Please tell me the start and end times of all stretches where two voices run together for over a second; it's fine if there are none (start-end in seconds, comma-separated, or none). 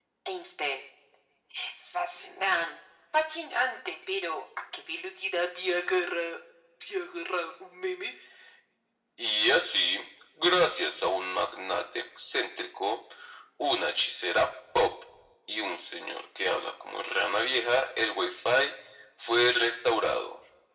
none